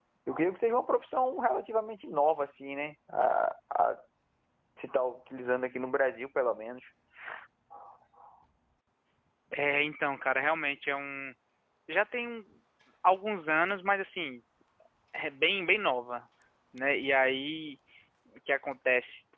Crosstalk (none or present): none